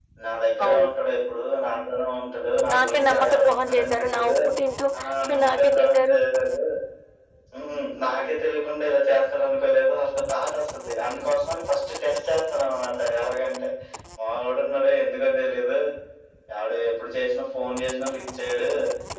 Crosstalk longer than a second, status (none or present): present